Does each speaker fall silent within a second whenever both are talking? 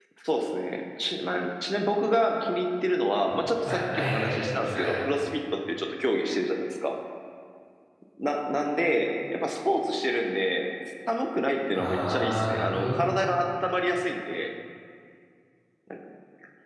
No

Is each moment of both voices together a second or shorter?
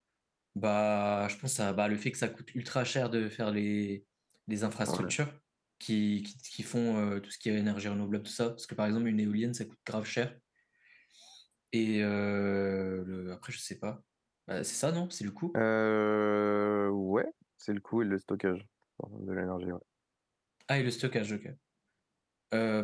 Yes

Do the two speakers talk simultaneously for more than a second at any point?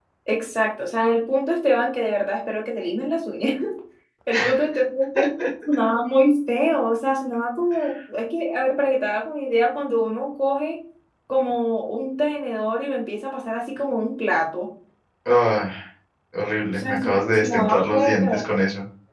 Yes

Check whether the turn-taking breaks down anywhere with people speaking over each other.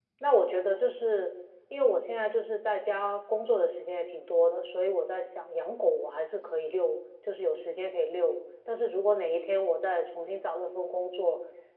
No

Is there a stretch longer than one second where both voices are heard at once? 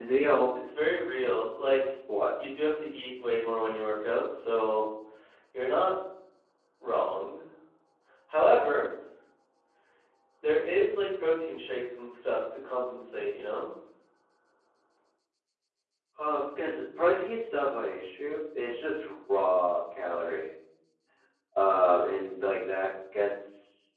No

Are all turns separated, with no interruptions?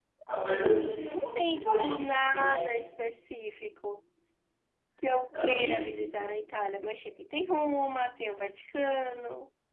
No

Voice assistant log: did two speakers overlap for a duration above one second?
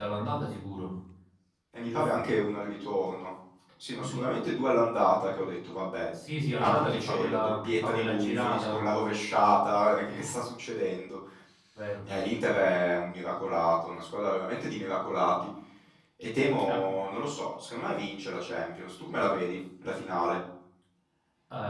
Yes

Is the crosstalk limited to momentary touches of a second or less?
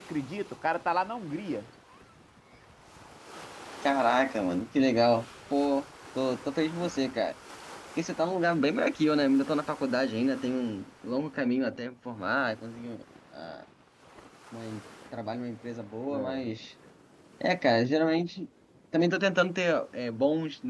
Yes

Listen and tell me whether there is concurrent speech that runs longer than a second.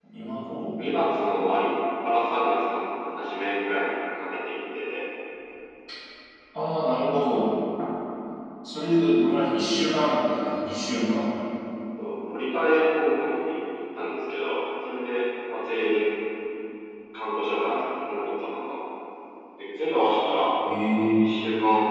No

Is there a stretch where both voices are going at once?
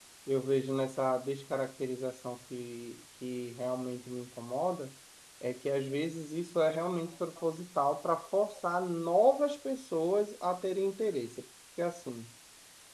No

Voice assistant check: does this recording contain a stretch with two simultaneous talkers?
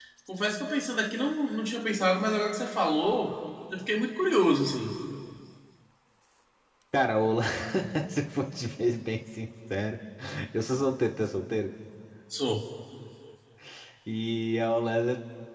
No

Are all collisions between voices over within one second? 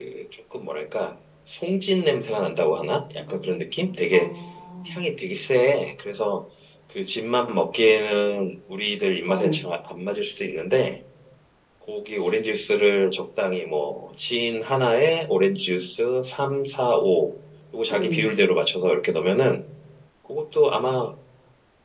Yes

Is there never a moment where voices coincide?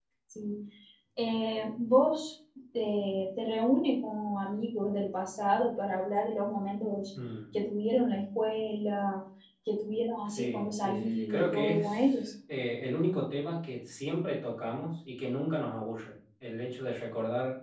No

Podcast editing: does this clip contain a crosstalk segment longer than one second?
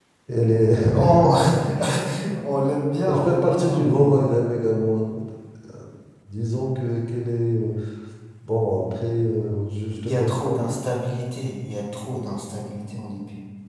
Yes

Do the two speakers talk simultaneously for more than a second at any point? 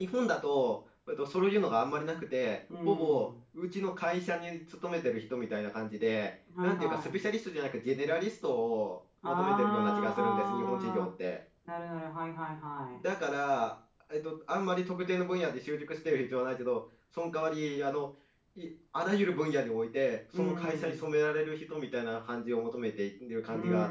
Yes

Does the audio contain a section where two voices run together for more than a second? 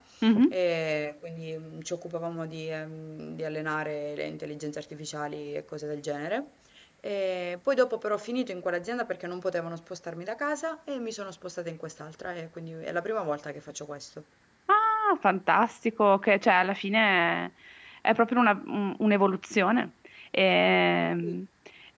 No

